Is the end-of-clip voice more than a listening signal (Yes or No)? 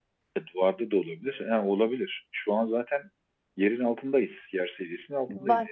Yes